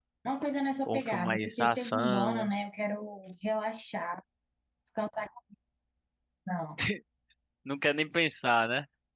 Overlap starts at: 0.9 s

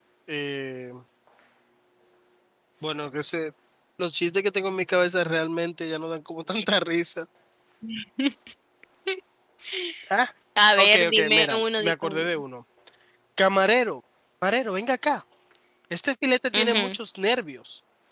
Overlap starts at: 10.8 s

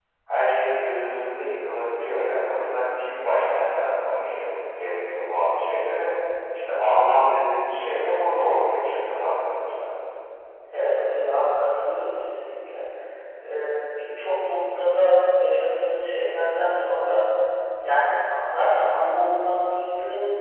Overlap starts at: none

